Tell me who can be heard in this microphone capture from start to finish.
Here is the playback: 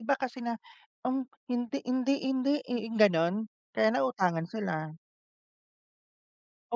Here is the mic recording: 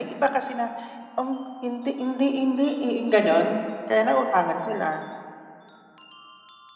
echo only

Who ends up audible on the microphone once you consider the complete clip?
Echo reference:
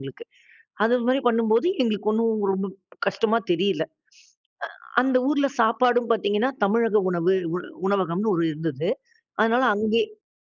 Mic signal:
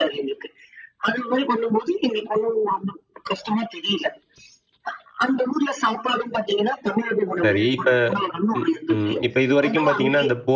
both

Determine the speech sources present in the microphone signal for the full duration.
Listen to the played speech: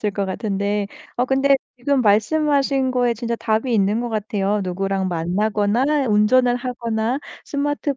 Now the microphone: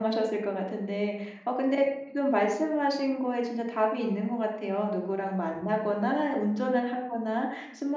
echo only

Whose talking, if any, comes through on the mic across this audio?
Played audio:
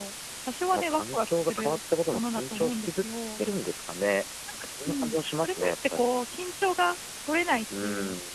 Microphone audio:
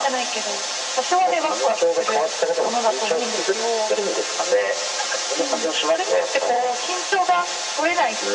echo only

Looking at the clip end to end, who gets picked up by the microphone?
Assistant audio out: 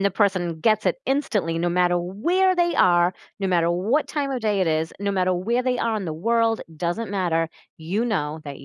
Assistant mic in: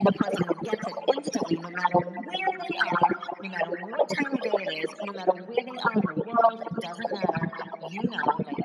echo only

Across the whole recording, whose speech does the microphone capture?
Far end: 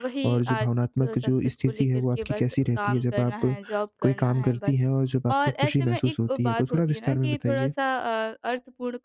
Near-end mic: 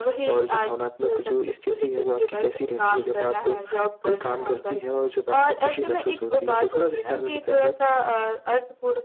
echo only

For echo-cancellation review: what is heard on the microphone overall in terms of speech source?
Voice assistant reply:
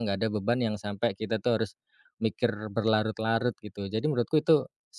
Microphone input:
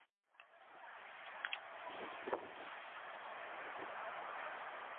neither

